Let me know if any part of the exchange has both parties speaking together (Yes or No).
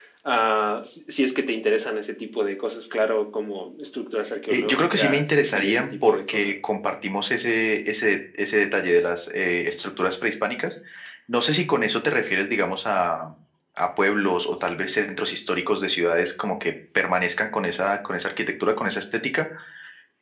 Yes